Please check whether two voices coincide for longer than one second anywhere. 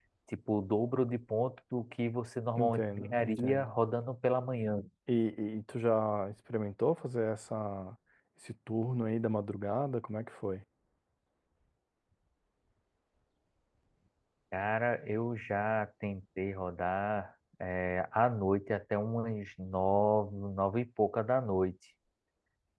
Yes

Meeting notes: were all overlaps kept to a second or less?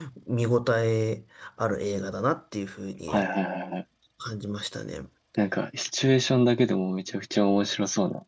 Yes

